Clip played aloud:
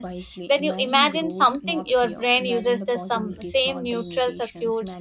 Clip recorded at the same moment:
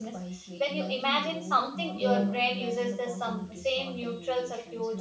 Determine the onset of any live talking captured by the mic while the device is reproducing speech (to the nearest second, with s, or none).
2 s